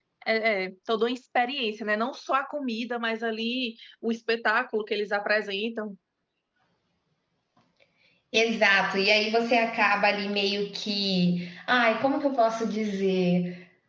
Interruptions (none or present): none